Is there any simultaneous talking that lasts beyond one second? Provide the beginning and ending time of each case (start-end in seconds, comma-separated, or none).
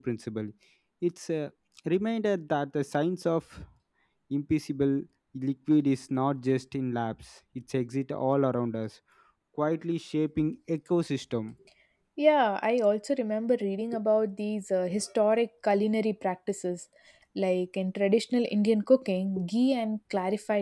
none